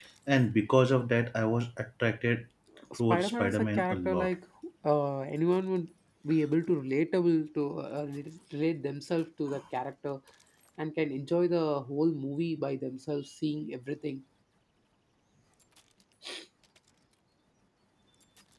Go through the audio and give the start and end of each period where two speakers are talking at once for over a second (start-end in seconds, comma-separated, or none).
3.0-4.3